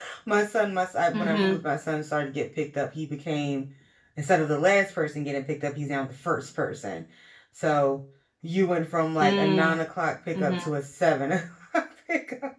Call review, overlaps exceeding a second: none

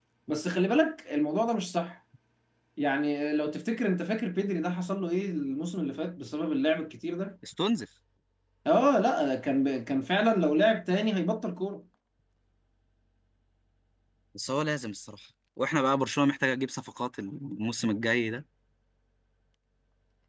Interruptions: none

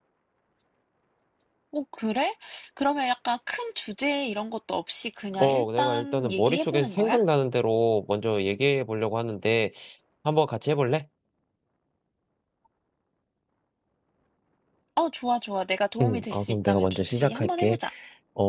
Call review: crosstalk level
present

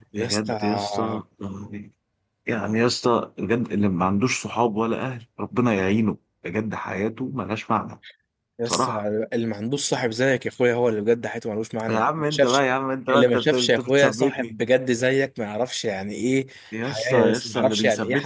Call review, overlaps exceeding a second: present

